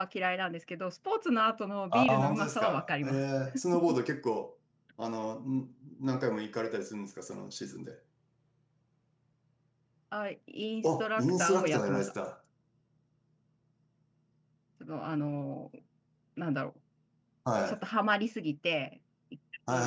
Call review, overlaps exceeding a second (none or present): present